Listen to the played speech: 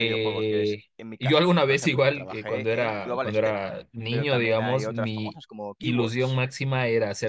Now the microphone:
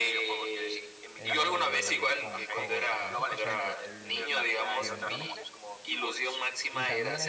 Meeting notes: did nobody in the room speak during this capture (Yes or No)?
No